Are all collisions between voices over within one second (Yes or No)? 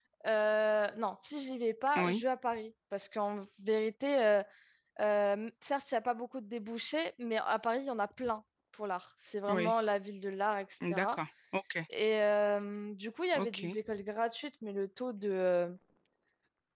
Yes